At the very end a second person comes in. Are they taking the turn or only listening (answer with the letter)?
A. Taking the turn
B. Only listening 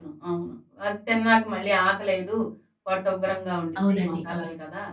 A